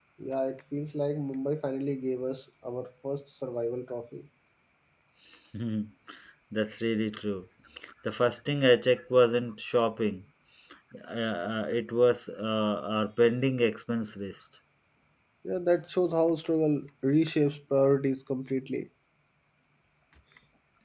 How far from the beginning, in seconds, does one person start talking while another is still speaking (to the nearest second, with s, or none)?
none